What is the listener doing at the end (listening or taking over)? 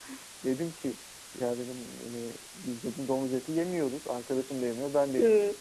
listening